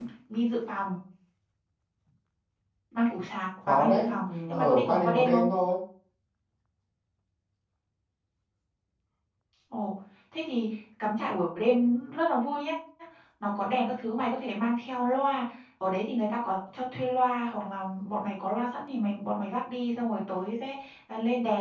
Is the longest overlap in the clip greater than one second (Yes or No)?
Yes